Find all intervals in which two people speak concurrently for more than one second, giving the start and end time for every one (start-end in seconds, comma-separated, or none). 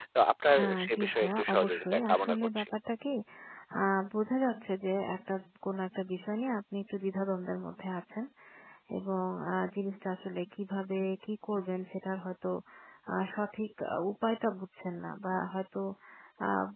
0.6-2.6